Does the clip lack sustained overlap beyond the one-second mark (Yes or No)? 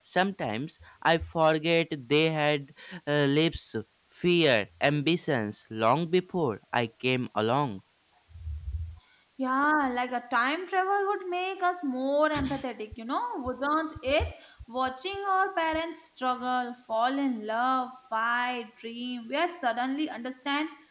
Yes